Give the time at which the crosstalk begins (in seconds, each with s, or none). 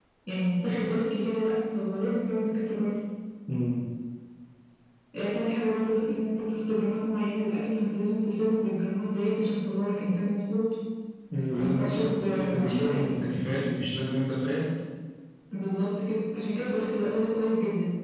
11.6 s